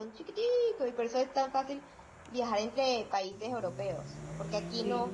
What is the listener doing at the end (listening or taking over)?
listening